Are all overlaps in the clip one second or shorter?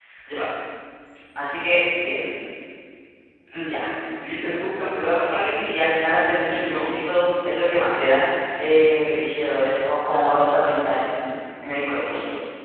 No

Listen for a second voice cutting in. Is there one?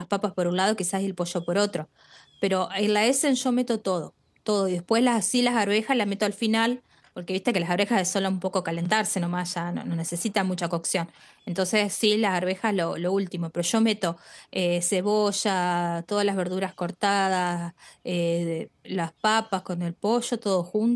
No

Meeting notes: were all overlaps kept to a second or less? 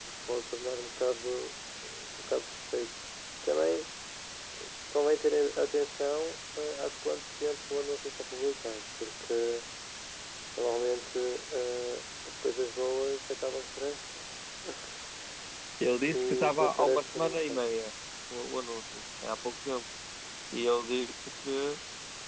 No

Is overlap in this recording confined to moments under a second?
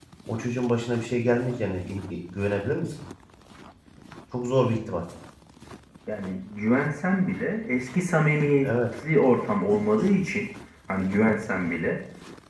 Yes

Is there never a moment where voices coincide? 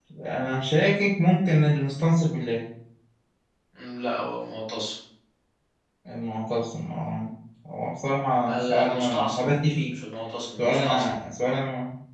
No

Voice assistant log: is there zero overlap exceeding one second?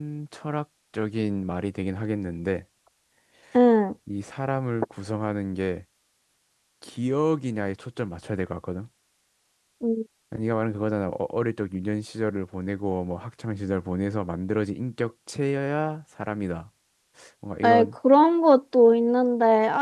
Yes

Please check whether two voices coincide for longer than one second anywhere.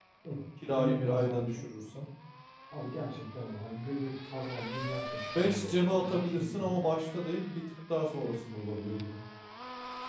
Yes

